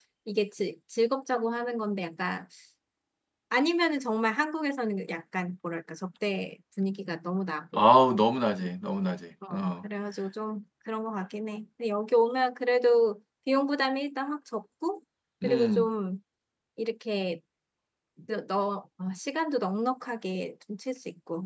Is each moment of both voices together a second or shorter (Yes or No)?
Yes